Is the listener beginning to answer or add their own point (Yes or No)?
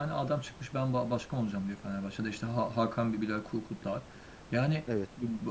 No